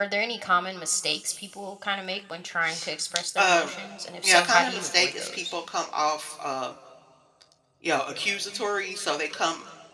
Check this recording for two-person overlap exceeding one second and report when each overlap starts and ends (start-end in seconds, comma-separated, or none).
4.2-5.5